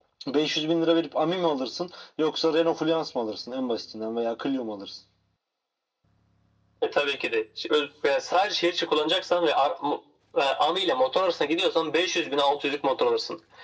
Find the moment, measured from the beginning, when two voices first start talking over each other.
none

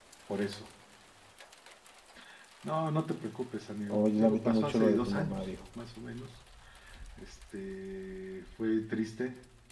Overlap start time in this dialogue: 3.9 s

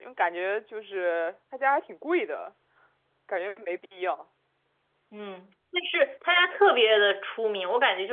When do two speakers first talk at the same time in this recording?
none

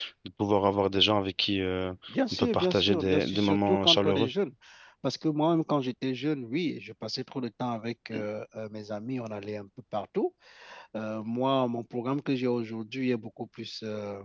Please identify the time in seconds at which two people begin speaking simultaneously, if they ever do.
2.3 s

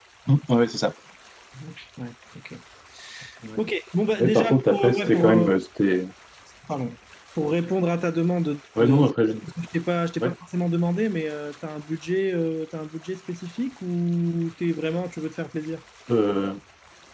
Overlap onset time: 4.2 s

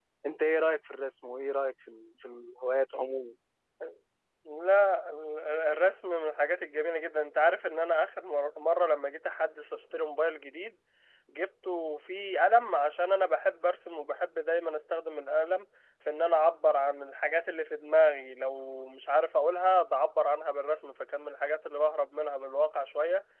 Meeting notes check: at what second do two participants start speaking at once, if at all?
none

